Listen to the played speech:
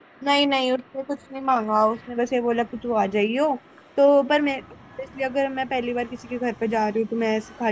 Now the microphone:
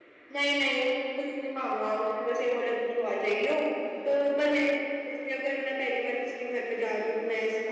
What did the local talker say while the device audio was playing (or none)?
none